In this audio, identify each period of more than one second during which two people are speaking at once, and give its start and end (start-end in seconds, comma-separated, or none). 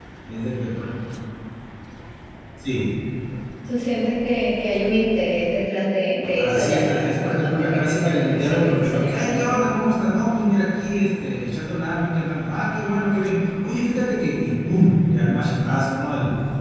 6.4-9.6